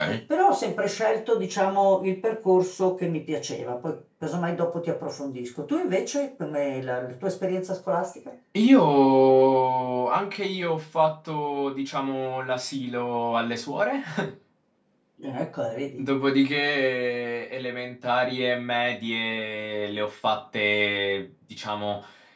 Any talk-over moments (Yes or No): No